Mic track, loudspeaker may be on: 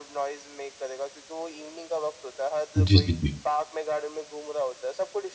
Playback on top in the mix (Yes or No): No